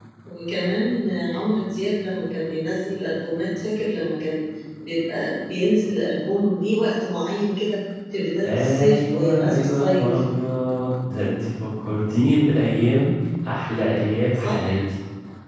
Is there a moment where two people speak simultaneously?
Yes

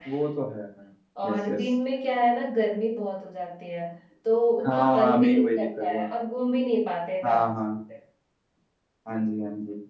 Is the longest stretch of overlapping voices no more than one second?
No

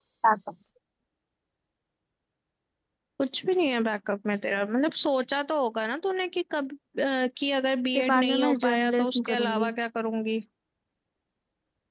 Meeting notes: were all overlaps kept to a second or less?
No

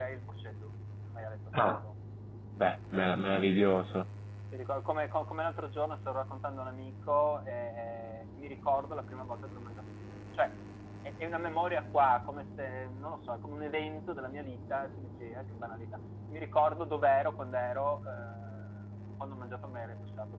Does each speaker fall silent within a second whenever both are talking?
Yes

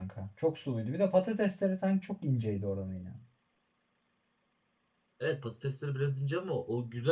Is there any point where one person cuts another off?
No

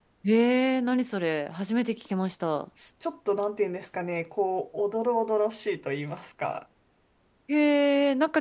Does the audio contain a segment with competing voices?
No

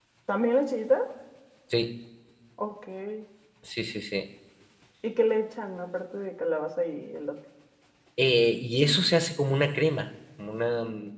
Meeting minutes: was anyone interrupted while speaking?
No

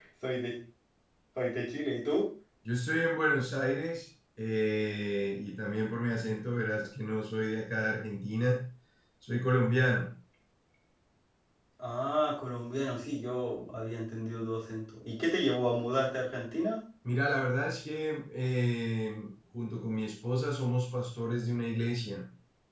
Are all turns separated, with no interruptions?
Yes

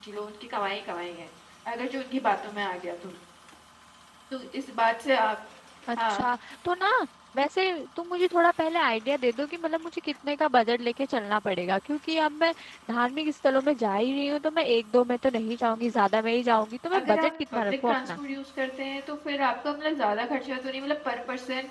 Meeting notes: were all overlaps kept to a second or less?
No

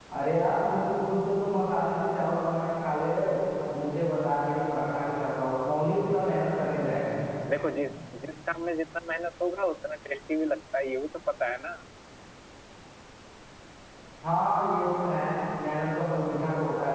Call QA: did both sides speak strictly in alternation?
Yes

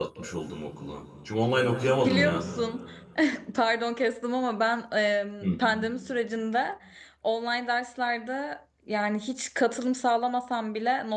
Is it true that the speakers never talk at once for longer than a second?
Yes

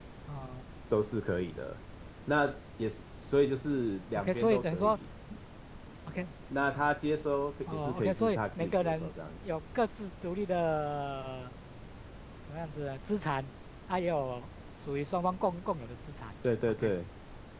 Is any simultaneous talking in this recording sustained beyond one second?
Yes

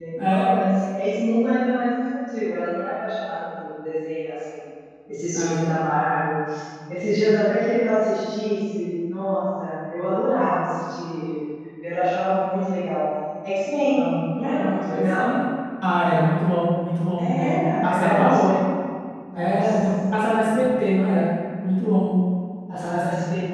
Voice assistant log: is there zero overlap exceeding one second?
No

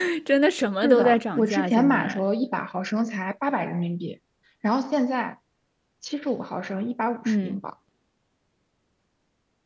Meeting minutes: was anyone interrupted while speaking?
Yes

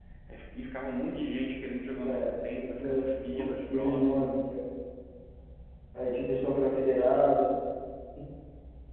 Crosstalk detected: Yes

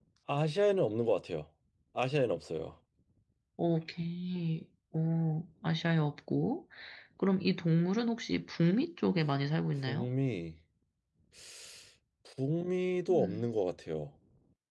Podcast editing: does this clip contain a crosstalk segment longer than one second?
No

